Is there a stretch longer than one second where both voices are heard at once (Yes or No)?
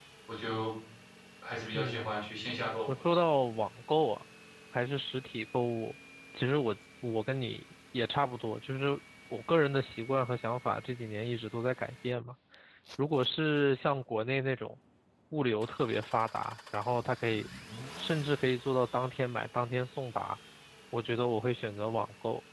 No